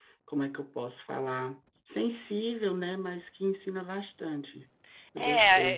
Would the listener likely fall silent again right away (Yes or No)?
No